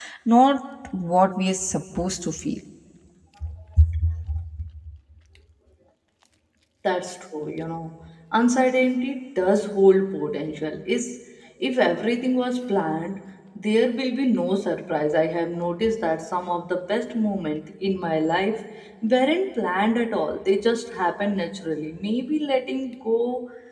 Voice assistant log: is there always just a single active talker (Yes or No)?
Yes